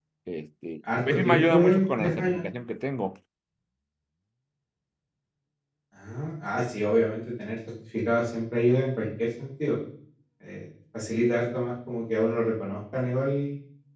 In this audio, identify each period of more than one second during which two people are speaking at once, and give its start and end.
1.1-2.4

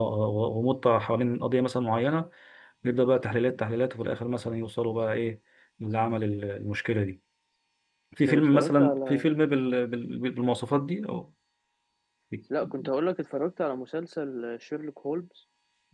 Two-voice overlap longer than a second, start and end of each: 8.3-9.7

